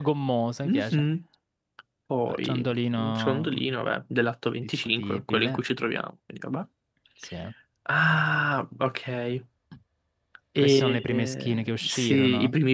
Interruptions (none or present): present